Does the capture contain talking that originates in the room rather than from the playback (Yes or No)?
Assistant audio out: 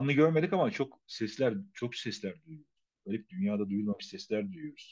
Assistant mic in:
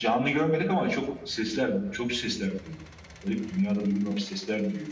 No